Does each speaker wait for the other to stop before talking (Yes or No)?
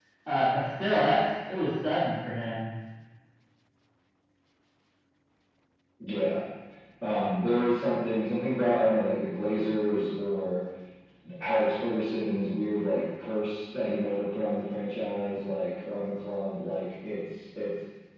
Yes